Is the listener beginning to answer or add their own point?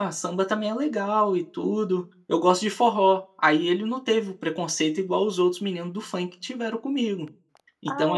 Yes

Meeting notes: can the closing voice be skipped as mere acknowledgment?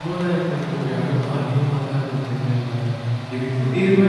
Yes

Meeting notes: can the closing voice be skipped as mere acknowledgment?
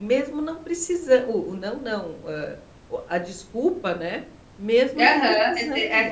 No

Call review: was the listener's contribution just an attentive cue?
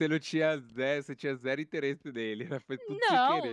No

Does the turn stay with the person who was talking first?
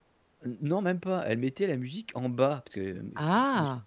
Yes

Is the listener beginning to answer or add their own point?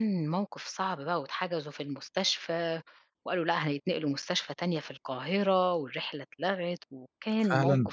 Yes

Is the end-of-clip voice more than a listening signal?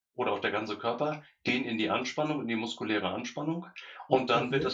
No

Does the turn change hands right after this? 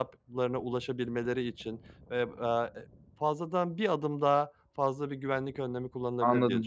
Yes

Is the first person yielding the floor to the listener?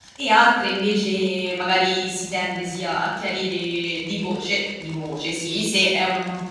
No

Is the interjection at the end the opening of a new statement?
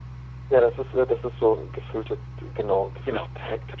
Yes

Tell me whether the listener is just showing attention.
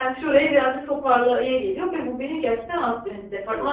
Yes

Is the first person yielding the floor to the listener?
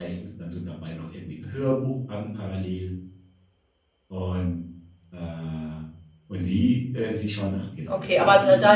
Yes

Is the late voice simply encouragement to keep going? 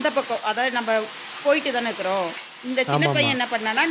Yes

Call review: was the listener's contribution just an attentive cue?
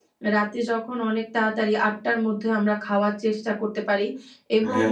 Yes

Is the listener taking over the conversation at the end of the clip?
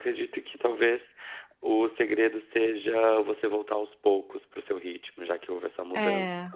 No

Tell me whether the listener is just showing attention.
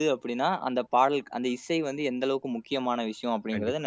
No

